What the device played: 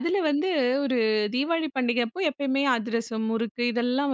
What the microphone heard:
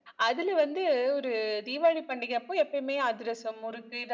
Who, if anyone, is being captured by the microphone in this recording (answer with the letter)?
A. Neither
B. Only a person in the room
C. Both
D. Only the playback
D